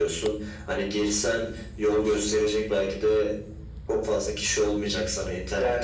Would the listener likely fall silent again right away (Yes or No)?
Yes